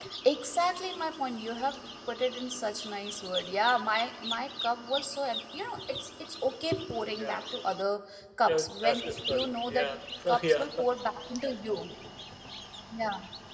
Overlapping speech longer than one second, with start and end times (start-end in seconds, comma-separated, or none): 8.5-9.9